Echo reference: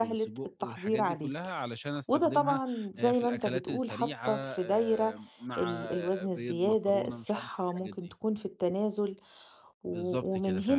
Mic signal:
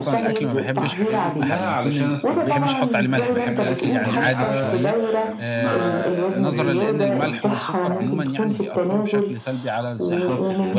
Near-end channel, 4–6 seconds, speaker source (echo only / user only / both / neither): both